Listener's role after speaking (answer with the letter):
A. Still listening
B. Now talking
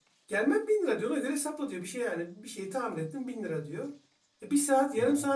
A